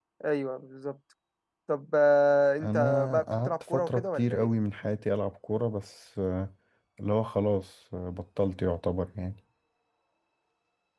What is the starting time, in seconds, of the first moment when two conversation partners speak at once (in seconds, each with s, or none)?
2.6 s